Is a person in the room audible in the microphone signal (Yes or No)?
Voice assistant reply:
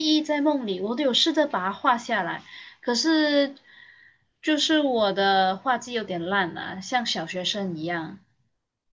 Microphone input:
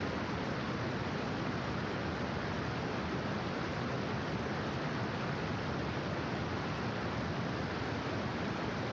No